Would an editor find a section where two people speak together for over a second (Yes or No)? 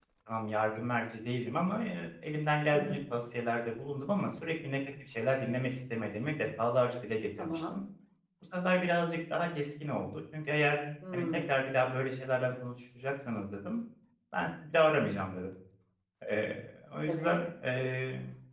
No